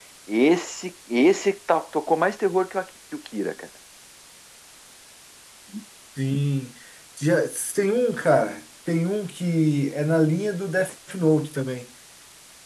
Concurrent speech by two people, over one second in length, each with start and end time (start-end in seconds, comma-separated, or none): none